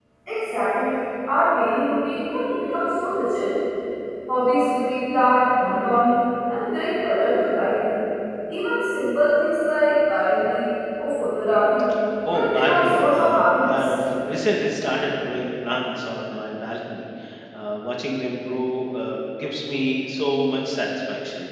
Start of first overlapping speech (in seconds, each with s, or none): 12.3 s